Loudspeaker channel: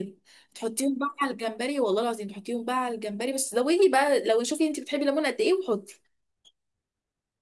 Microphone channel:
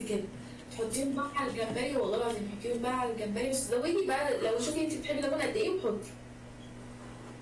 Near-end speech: none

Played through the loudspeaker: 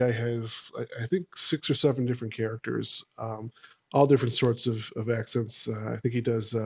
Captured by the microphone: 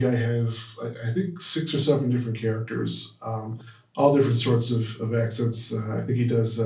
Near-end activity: none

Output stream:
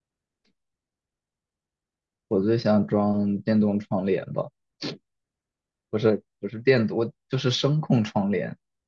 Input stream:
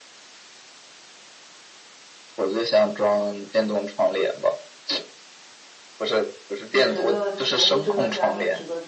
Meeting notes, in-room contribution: present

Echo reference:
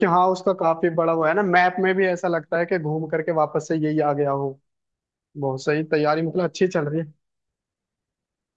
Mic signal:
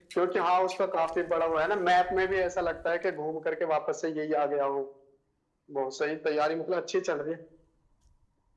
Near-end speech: none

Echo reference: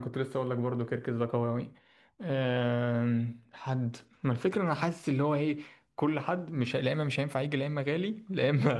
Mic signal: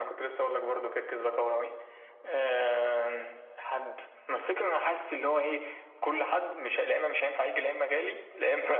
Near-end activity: none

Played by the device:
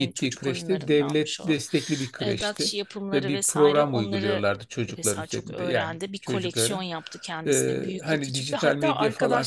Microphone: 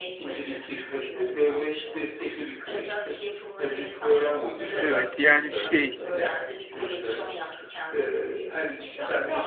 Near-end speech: present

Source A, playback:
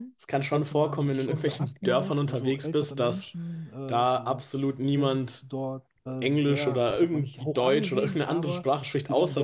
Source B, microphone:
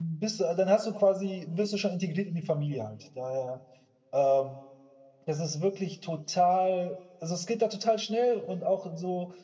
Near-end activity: present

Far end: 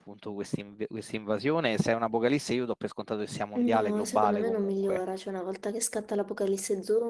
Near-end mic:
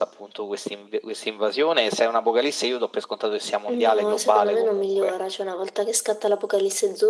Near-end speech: none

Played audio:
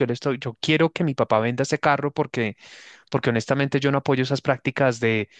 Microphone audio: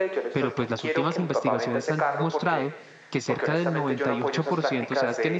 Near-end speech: present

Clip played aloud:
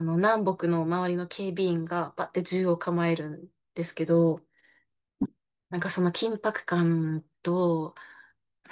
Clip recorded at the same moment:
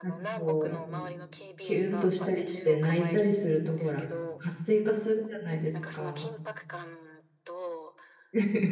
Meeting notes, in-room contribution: present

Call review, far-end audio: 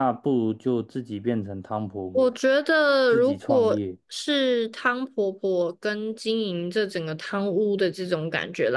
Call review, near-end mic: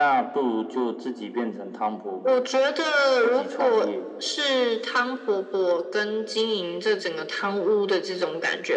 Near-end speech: none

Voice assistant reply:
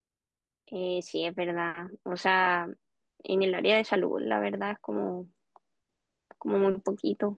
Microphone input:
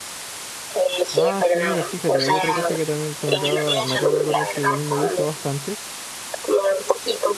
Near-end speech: present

